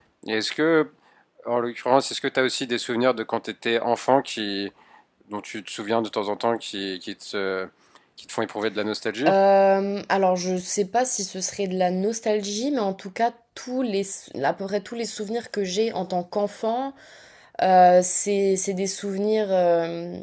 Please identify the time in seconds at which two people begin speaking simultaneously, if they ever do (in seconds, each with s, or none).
none